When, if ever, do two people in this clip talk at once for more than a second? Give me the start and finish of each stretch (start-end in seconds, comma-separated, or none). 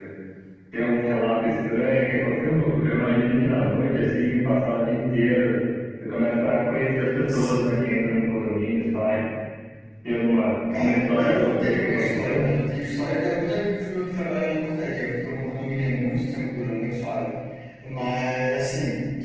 10.8-12.4